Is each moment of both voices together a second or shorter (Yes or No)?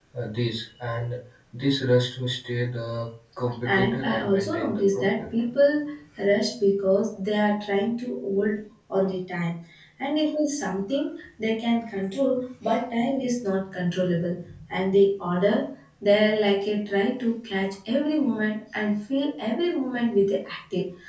No